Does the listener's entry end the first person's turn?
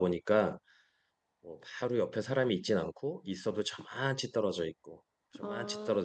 No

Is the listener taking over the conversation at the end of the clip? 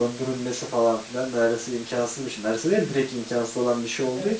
No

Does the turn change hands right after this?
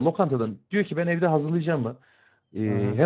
No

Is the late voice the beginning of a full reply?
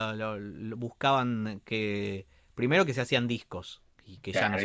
Yes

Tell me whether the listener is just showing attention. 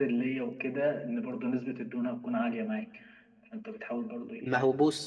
No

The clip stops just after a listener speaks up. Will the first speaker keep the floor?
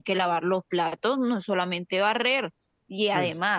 Yes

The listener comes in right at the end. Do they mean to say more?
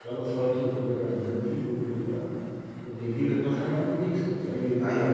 Yes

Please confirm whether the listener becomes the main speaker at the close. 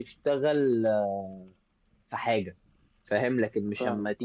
No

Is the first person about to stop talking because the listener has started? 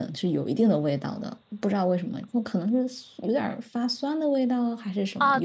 Yes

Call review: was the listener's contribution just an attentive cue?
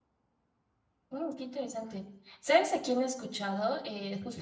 Yes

